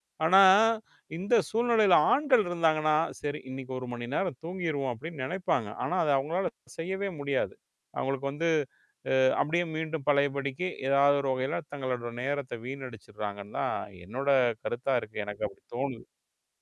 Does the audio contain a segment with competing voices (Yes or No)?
No